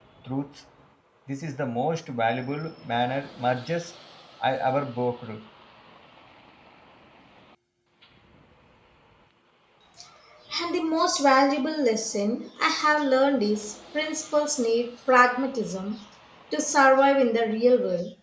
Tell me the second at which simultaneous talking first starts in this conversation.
none

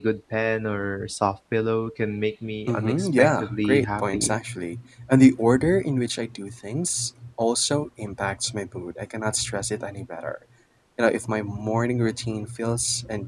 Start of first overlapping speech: 2.7 s

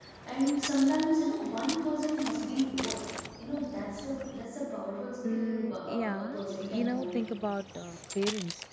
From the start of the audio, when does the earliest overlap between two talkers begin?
5.2 s

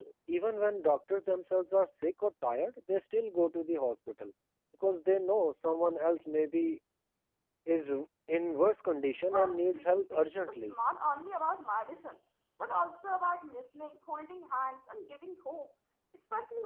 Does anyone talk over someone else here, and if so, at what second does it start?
9.2 s

